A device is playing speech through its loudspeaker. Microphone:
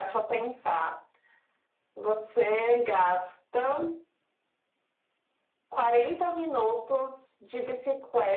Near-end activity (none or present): none